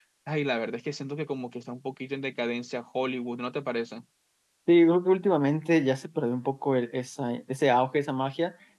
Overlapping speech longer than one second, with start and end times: none

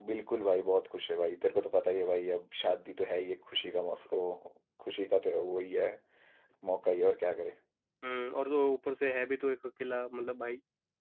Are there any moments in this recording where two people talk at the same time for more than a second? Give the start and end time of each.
none

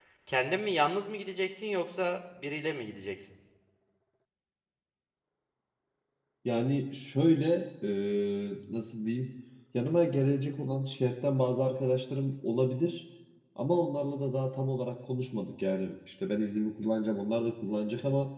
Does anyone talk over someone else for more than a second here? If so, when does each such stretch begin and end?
none

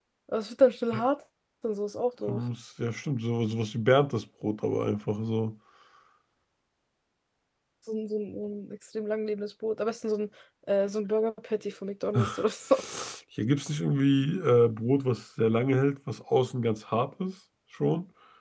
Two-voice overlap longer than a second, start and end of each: none

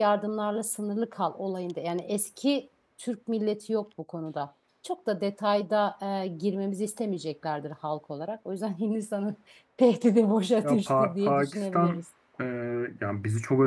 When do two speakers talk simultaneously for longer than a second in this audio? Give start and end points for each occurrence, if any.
10.6-12.0

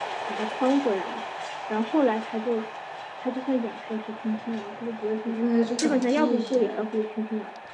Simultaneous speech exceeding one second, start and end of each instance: 5.2-6.9

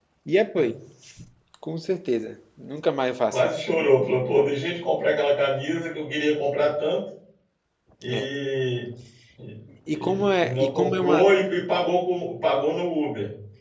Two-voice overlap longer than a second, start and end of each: 9.9-11.2

